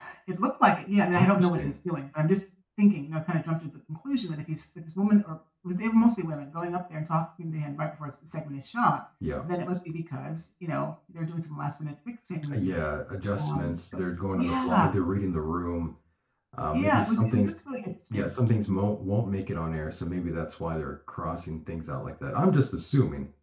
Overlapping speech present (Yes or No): Yes